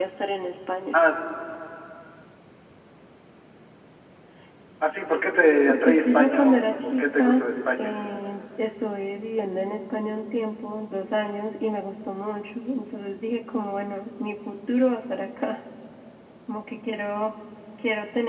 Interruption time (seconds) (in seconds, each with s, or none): 5.7 s